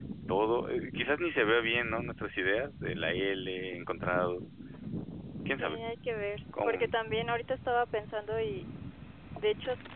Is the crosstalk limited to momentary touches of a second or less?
Yes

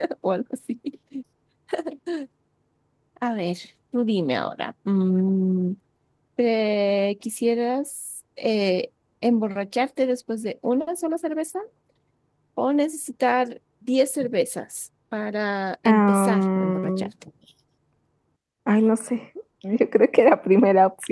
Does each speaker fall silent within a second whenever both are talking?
No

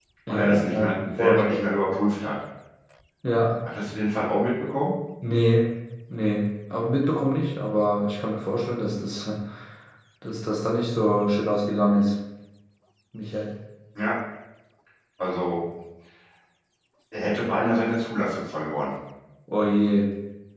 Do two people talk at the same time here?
Yes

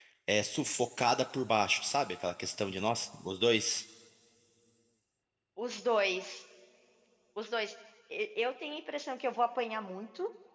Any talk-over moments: No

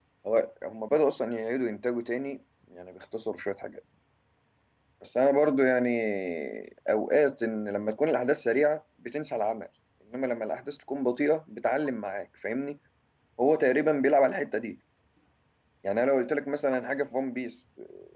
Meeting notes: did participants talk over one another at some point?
No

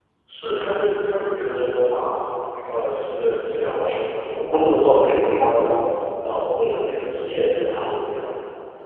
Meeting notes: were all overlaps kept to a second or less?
No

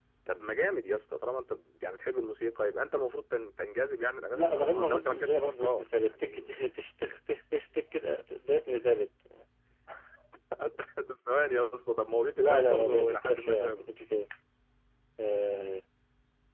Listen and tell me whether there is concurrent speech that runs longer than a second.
Yes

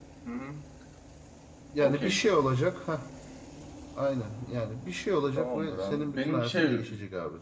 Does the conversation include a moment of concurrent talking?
Yes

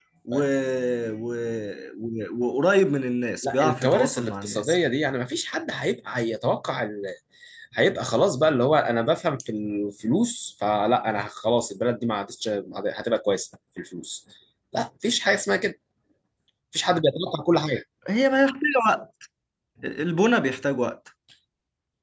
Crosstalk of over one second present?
Yes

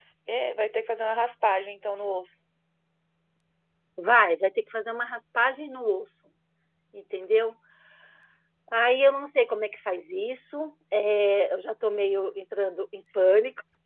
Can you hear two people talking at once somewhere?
No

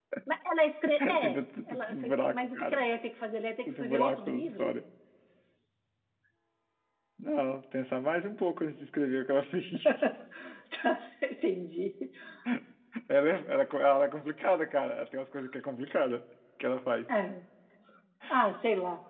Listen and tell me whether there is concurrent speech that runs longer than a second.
Yes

